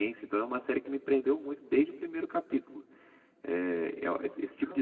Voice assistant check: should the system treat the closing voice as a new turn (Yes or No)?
No